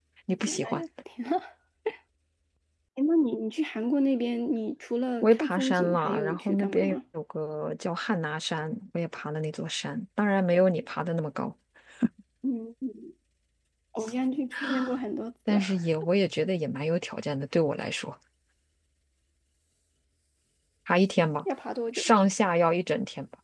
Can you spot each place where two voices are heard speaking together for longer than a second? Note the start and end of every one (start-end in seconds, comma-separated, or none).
5.2-7.0